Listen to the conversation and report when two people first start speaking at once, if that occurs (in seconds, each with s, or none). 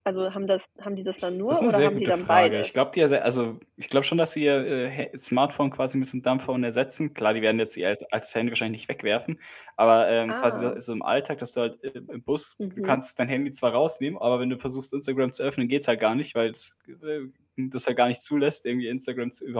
1.5 s